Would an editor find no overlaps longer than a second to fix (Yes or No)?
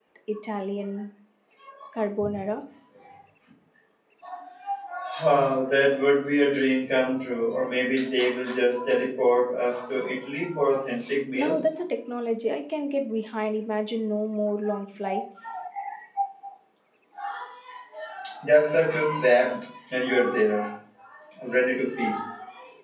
Yes